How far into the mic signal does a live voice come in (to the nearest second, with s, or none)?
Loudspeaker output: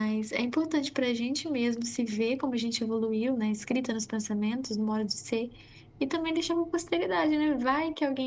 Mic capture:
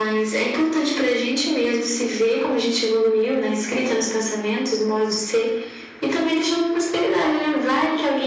none